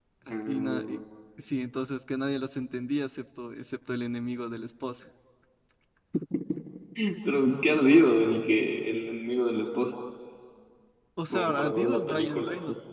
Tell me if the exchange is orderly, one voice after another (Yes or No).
No